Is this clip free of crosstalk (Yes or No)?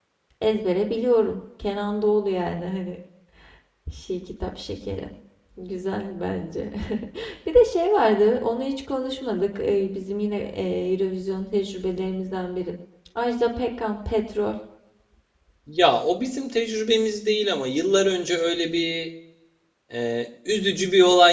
Yes